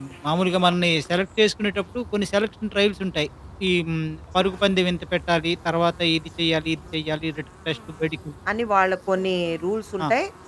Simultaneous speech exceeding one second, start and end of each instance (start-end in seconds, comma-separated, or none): none